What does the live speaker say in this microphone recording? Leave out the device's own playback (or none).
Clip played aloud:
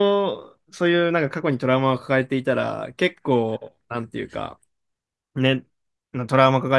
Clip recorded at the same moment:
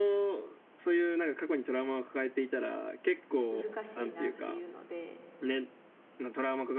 難しいなっていうので、